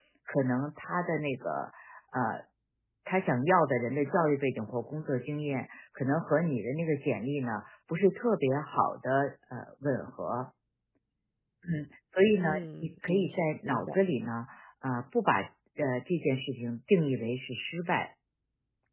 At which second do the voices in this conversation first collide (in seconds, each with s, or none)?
12.4 s